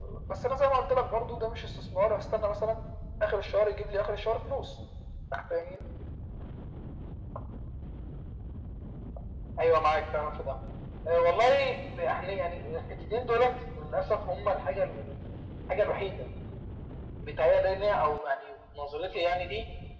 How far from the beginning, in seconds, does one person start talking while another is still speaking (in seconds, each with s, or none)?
none